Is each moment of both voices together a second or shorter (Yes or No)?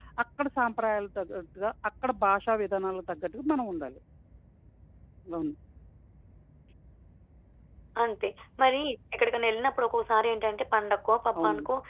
Yes